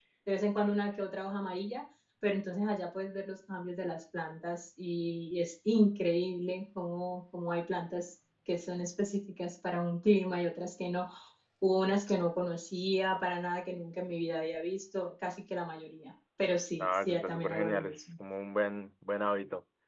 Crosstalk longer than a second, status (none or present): present